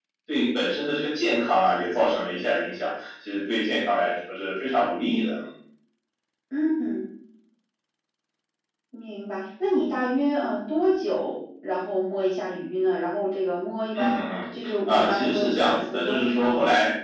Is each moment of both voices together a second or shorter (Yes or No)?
No